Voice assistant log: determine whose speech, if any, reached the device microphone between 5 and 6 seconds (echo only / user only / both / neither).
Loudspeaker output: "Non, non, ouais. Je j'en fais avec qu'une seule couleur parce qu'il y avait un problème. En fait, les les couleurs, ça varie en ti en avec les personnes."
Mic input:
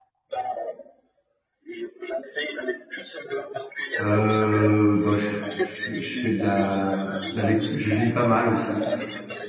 both